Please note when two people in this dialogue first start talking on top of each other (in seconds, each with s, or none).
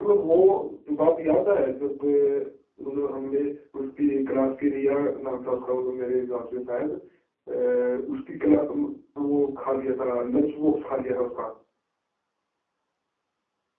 none